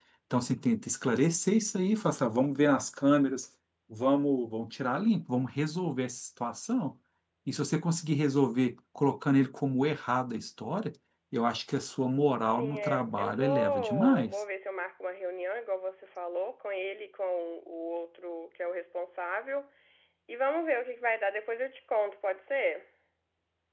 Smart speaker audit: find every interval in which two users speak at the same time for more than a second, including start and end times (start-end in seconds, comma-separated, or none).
12.5-14.3